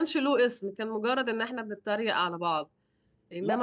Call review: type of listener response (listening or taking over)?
taking over